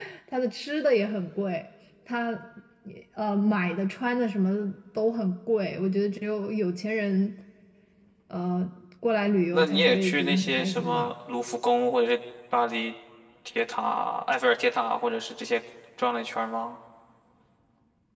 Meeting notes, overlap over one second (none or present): present